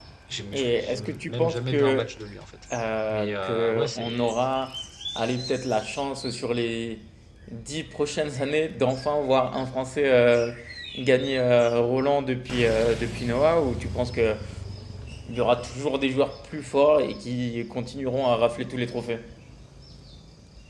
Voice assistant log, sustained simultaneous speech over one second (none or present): present